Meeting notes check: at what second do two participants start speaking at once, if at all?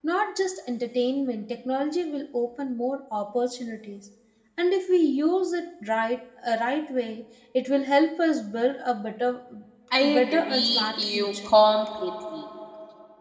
10.0 s

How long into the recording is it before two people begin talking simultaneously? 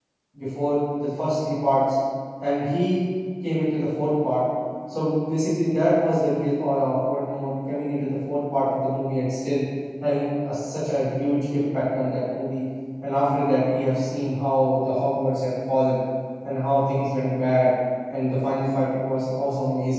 none

